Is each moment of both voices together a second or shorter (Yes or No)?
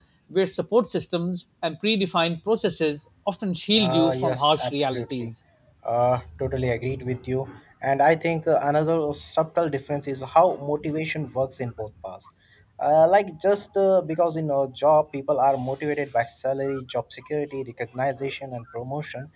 No